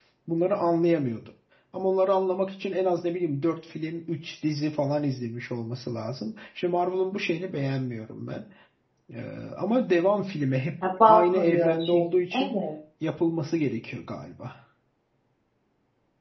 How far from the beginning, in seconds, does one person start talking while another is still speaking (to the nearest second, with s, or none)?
11 s